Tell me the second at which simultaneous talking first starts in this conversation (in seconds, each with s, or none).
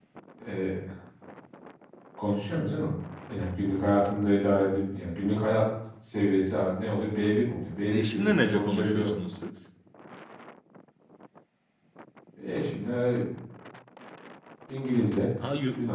7.9 s